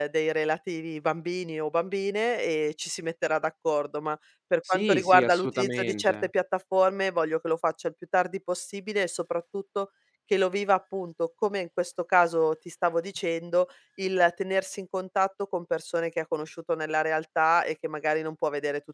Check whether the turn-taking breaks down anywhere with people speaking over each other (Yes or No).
Yes